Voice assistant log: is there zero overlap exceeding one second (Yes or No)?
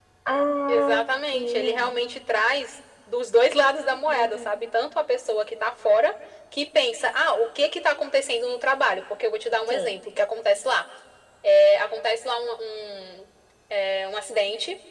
Yes